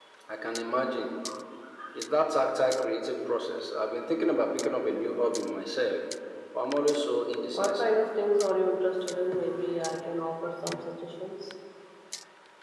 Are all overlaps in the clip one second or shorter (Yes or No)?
Yes